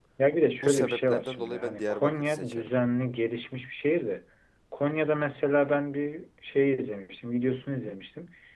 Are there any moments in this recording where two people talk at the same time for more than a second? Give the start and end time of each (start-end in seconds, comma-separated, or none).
0.6-2.7